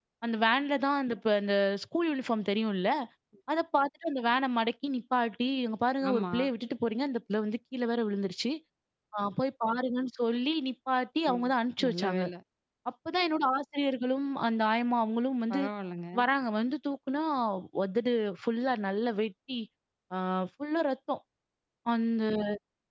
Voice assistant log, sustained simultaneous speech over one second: none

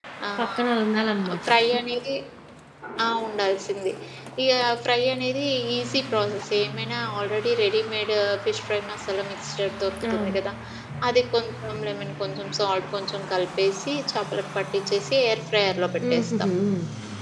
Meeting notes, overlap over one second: none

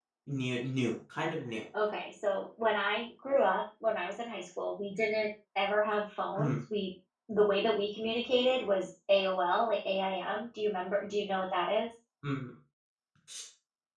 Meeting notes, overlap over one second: none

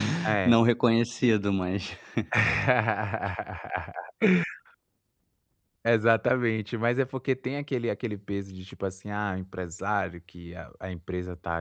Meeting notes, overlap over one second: none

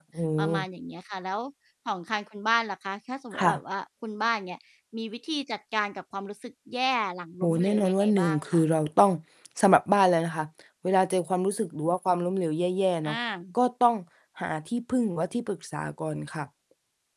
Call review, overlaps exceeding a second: present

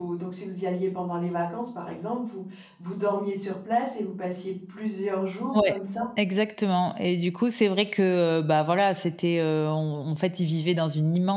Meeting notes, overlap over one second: none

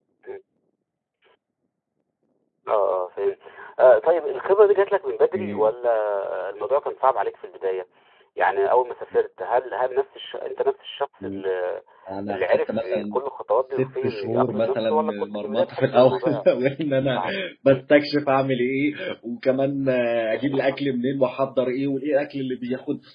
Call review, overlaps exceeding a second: present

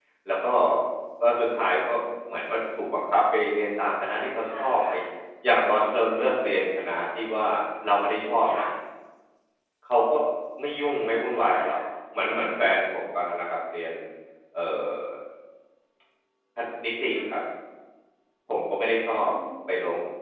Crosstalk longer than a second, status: none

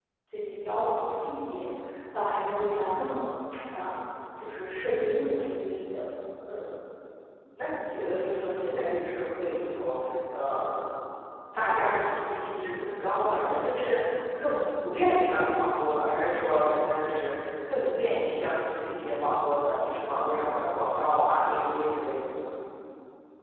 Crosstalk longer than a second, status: none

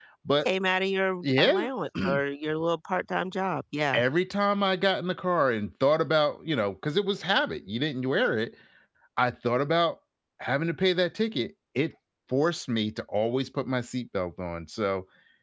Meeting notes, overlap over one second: none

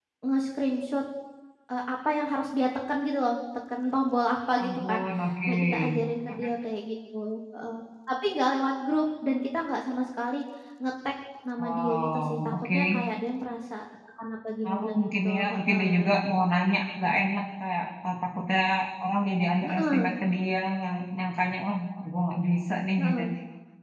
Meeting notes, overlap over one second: present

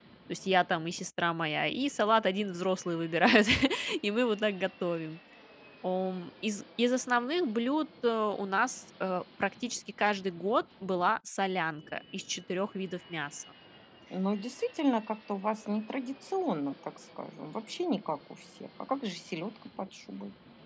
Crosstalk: none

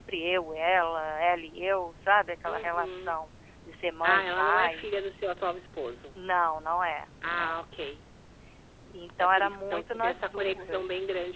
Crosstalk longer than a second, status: present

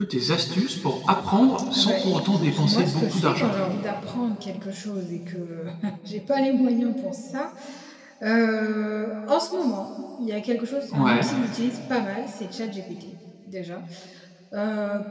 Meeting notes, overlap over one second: present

